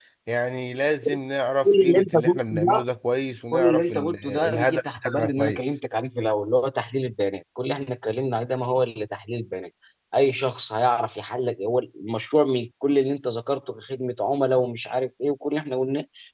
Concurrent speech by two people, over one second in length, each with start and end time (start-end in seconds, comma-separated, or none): 1.6-2.8, 3.5-5.6